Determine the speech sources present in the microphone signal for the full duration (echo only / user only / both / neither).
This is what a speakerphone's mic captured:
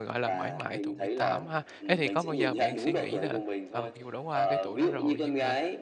both